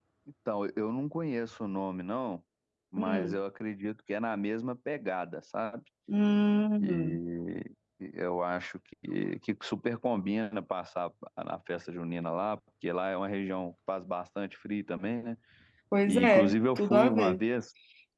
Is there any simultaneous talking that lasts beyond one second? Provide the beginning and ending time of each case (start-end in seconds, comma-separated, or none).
16.1-17.4